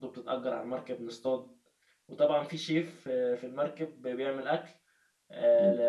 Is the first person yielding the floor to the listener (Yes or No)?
No